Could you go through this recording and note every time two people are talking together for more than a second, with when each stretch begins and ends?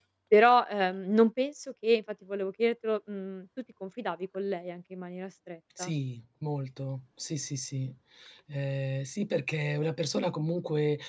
none

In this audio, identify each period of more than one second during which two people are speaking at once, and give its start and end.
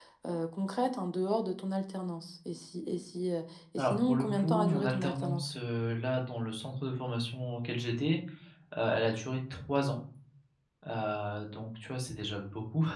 3.8-5.5

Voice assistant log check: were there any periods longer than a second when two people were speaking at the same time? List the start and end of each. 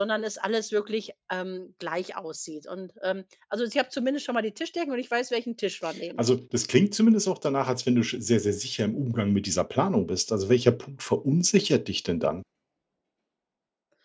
none

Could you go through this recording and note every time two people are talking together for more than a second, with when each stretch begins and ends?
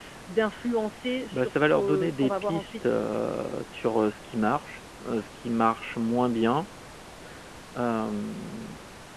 1.3-2.9

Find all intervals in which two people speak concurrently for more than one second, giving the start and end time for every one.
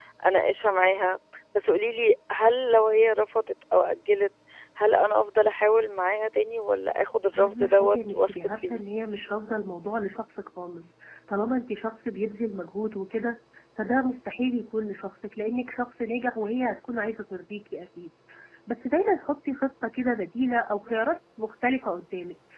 7.3-8.8

